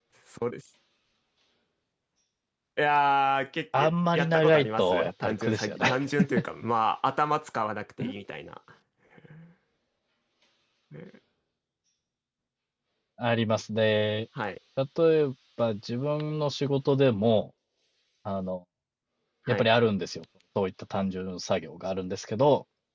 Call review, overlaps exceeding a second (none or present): present